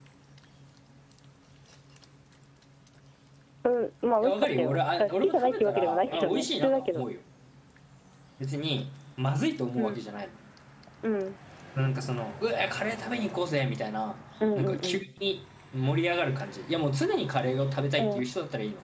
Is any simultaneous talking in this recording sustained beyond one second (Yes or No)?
Yes